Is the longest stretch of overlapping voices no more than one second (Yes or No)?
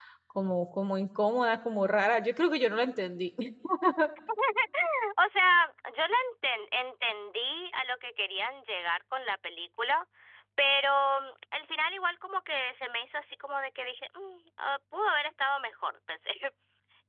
Yes